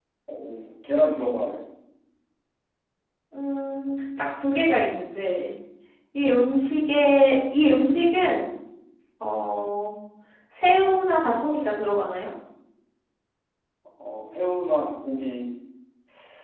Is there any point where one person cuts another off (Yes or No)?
No